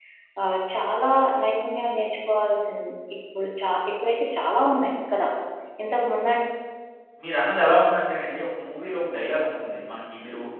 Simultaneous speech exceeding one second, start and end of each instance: none

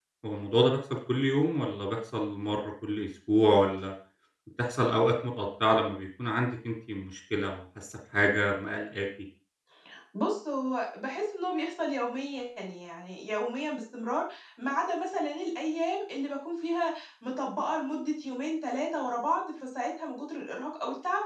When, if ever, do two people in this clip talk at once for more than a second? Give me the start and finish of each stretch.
none

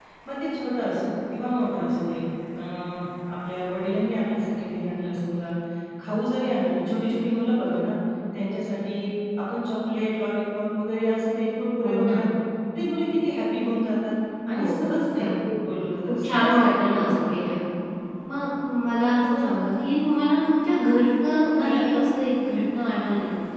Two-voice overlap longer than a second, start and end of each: 16.1-17.3

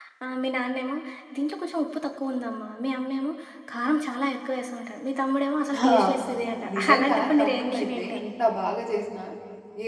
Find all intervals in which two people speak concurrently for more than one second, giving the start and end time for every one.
6.8-8.2

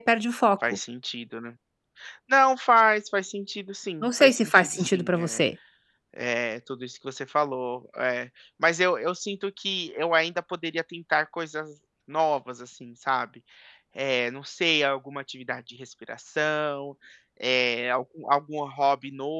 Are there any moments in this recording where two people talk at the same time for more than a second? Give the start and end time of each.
4.0-5.4

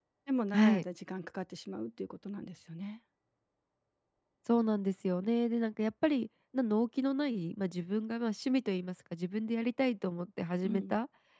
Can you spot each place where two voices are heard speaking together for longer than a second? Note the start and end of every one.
none

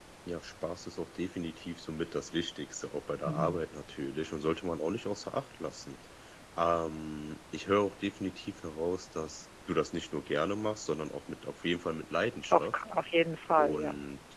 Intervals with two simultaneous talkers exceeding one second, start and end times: none

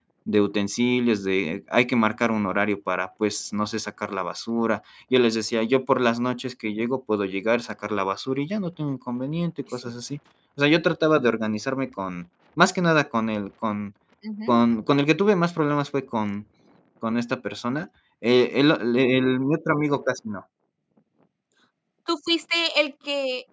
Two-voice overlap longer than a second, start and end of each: none

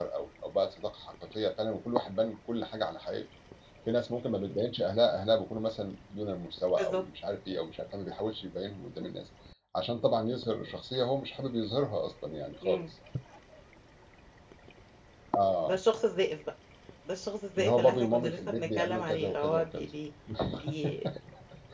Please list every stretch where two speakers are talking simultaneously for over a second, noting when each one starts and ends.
17.6-19.9

